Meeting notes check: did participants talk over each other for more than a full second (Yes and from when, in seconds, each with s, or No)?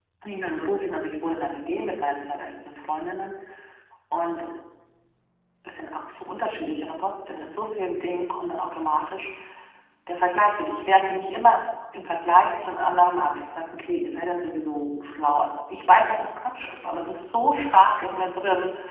No